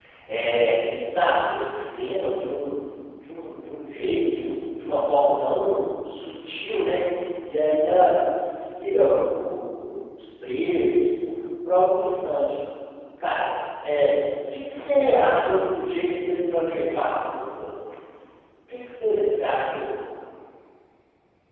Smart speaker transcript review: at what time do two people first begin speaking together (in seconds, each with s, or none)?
none